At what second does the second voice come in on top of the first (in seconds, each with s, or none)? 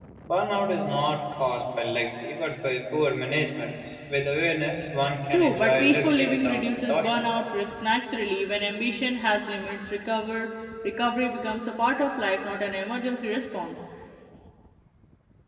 5.3 s